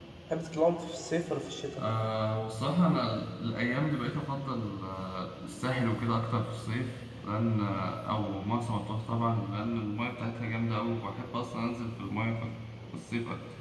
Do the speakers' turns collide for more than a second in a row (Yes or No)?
No